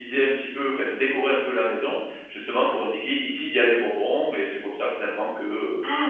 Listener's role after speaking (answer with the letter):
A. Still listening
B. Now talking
B